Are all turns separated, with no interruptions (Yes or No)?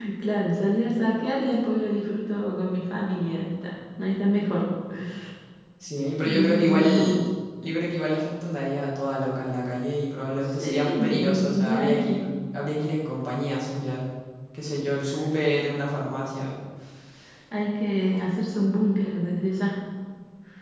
No